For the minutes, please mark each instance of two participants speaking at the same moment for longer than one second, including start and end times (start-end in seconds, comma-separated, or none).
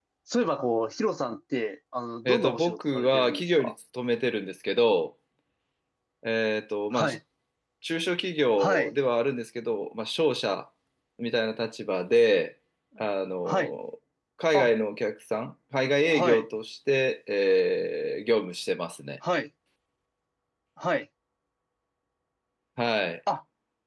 2.2-3.7